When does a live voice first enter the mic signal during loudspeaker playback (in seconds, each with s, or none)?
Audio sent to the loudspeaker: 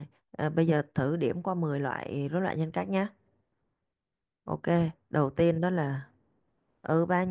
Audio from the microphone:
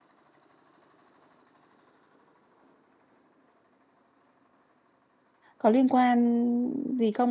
5.6 s